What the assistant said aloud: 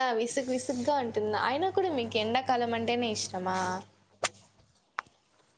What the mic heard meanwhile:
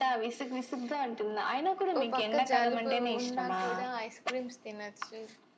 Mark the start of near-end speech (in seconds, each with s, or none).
2.0 s